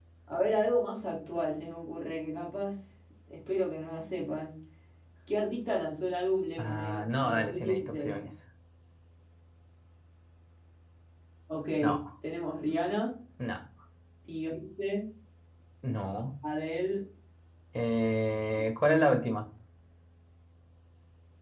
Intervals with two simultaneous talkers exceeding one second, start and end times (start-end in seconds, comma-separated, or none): 6.6-8.2